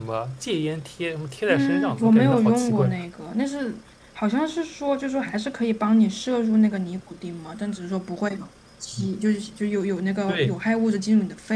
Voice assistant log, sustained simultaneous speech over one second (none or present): present